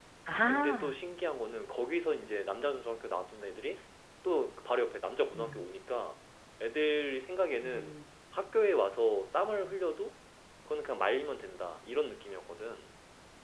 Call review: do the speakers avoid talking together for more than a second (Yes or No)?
Yes